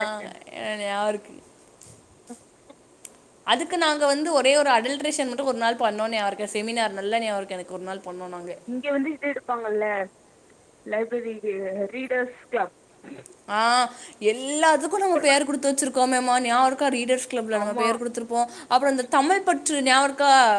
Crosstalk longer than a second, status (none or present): none